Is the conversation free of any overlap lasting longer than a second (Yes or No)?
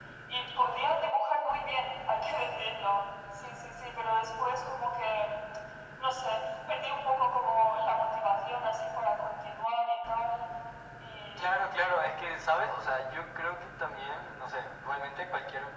Yes